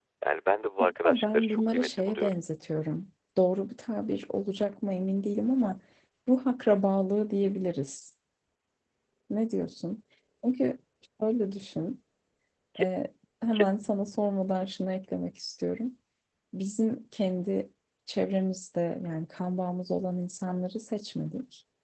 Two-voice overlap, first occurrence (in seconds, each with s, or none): 0.8 s